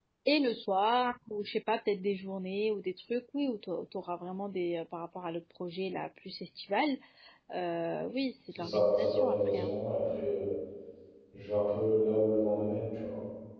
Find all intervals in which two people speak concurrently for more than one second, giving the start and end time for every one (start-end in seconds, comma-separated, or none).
8.5-9.7